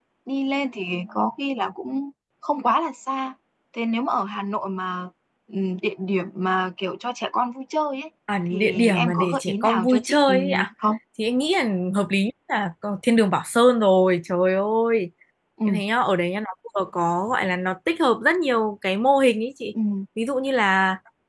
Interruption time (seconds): 8.3 s

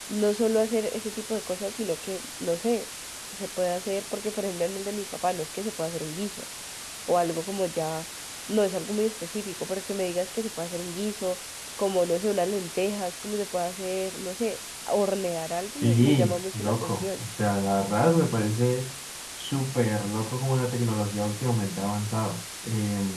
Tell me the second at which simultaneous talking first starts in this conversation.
15.8 s

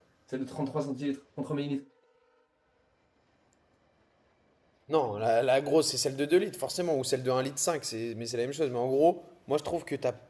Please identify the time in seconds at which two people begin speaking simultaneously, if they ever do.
none

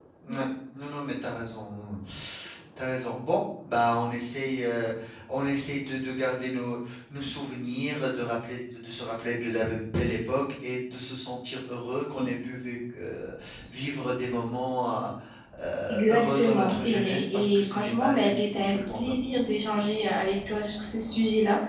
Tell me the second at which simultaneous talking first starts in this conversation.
15.9 s

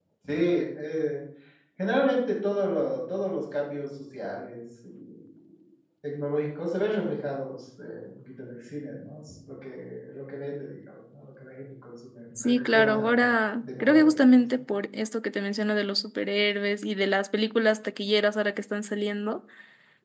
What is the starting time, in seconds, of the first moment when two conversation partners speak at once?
12.4 s

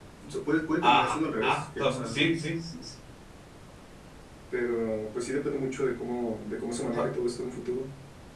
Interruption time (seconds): 0.8 s

